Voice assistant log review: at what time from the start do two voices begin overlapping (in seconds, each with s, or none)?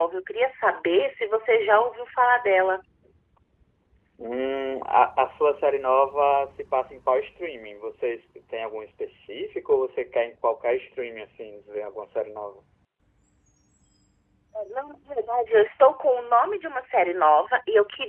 none